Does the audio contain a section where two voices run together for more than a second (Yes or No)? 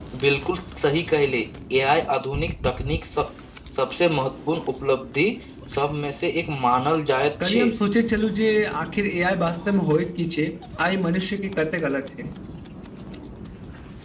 No